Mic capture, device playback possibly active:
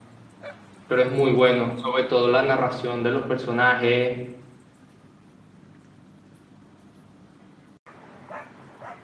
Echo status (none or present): none